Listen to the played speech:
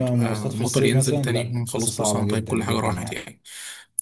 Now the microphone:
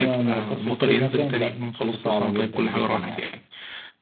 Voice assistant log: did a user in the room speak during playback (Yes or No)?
No